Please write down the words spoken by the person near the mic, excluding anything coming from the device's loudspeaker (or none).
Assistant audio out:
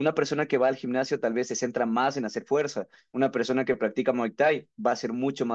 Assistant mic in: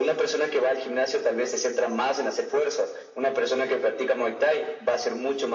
none